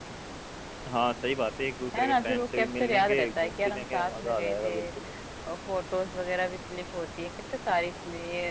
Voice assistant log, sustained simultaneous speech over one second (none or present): present